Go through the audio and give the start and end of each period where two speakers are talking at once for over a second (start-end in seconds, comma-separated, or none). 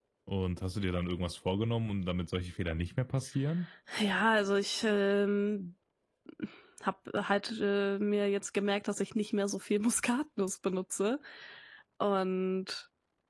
none